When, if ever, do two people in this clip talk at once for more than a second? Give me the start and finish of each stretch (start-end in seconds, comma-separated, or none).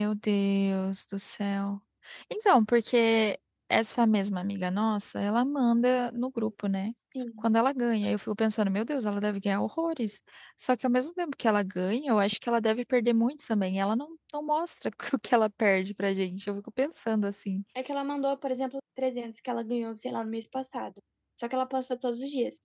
none